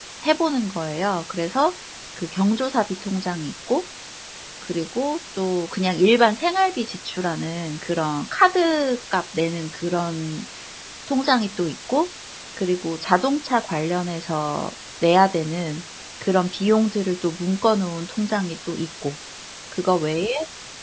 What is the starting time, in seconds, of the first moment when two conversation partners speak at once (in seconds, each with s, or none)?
none